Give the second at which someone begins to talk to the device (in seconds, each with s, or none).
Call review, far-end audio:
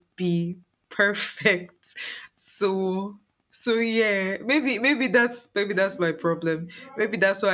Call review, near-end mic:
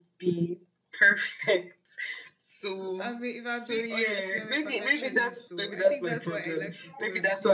3.0 s